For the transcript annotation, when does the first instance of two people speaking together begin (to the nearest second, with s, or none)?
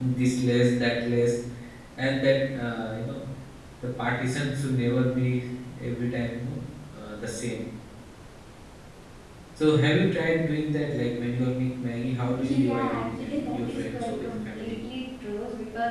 12 s